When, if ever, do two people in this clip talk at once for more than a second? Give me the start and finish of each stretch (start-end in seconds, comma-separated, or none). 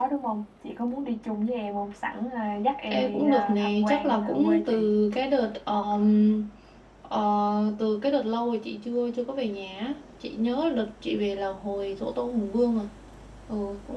2.9-4.9